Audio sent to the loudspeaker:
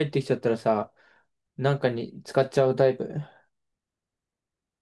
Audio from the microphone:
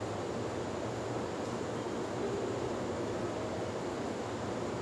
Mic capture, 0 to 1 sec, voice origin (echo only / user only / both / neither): neither